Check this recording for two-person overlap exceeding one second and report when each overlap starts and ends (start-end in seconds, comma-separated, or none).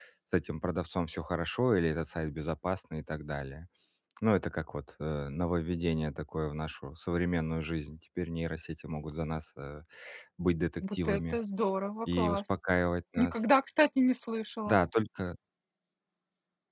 none